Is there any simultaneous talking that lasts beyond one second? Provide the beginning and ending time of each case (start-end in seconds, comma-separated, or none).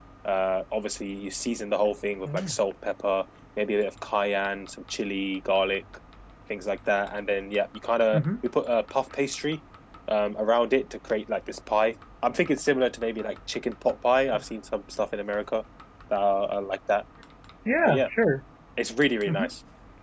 none